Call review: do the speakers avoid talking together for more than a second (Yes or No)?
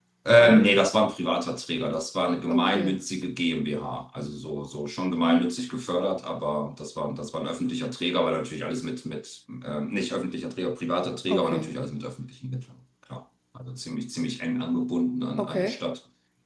Yes